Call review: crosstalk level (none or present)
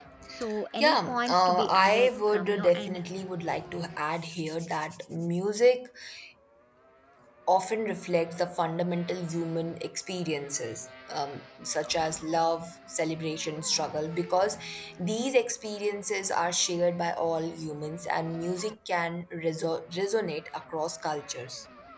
present